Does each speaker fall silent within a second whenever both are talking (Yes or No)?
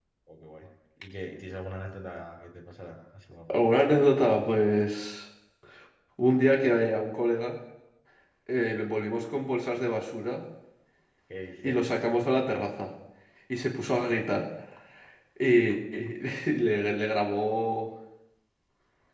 Yes